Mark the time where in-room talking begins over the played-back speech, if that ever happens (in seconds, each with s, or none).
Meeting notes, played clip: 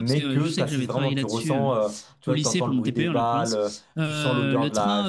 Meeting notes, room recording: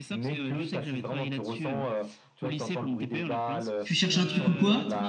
3.8 s